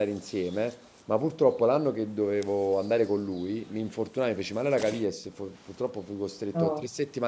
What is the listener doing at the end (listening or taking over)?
listening